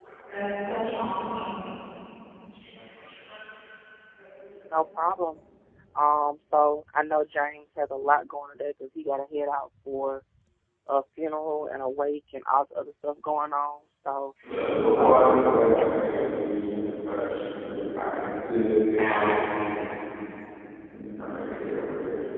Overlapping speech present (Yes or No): Yes